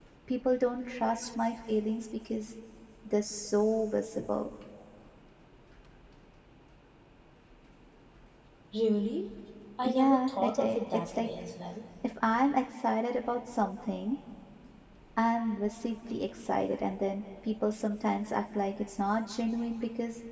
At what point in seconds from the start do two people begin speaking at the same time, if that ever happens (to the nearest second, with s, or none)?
10 s